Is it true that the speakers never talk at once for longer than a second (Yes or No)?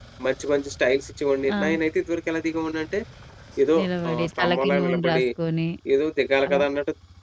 No